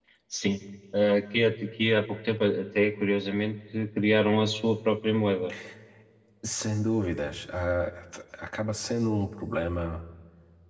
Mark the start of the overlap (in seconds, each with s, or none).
none